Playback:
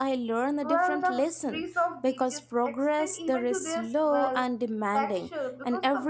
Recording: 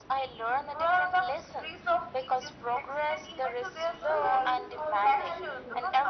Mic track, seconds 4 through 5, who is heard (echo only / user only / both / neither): both